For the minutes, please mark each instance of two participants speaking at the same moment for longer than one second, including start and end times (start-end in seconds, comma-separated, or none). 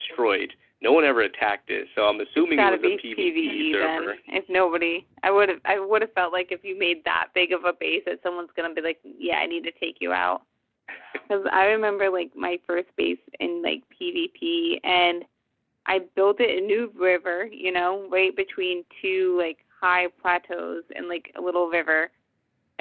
2.5-4.1